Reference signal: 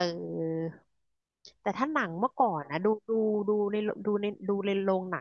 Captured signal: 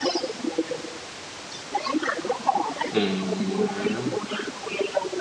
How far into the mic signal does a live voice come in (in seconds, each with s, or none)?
2.9 s